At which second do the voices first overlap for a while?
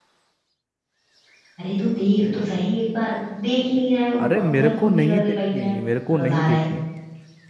4.2 s

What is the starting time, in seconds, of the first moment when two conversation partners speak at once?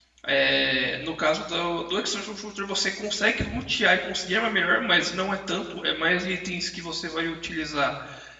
none

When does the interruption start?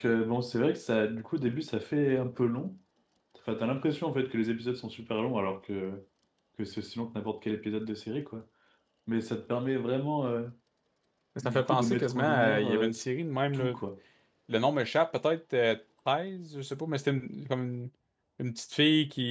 11.4 s

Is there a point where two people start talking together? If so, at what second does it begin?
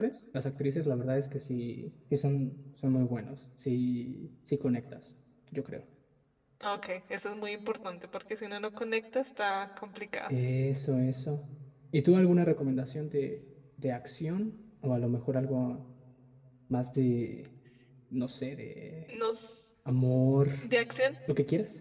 none

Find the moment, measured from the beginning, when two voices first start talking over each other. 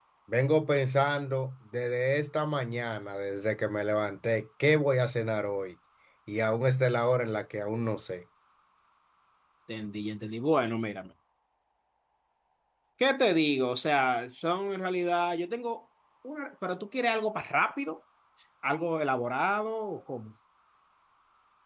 none

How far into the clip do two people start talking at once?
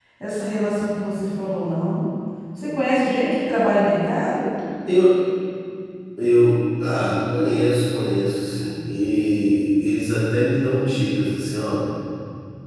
none

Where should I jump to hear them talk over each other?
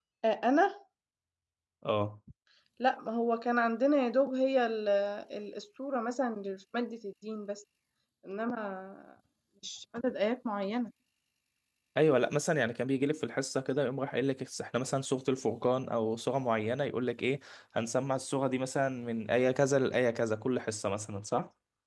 none

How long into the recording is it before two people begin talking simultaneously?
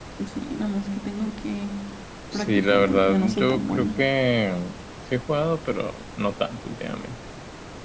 2.3 s

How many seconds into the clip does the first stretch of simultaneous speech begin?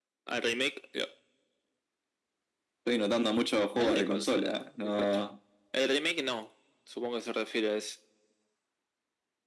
3.8 s

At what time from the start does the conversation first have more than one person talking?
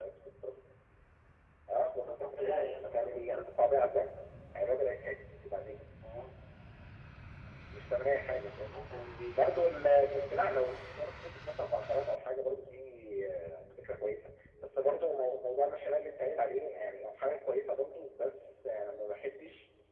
2.0 s

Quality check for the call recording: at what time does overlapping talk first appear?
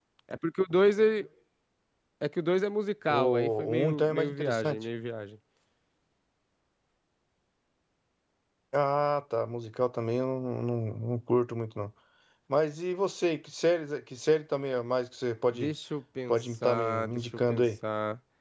3.1 s

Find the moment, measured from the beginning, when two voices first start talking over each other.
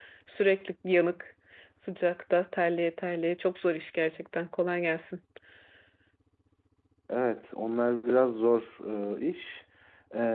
none

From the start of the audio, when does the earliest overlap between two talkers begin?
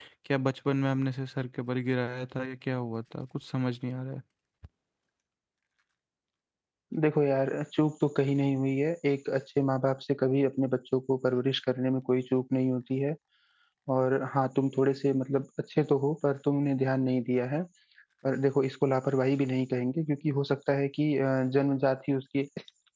none

